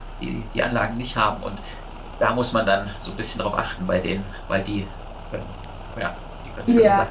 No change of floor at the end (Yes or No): No